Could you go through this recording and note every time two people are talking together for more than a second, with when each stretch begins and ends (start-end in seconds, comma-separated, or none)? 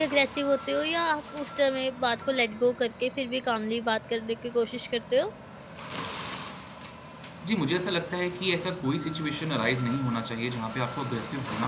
none